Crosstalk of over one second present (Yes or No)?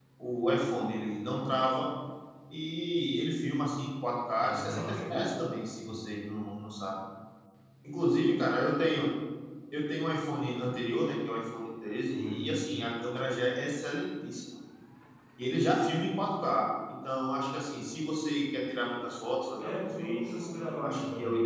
Yes